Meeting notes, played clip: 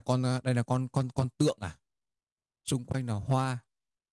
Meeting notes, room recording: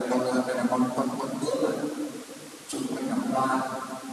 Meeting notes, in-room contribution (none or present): none